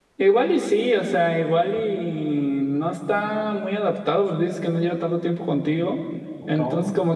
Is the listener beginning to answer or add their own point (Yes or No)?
No